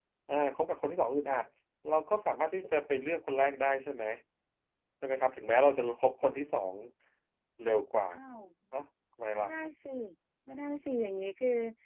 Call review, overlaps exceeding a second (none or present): none